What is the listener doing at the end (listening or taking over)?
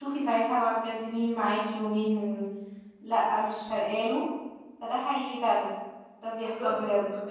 taking over